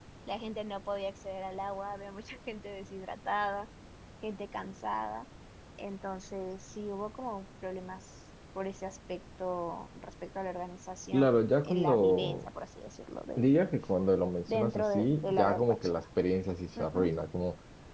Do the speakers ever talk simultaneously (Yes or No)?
Yes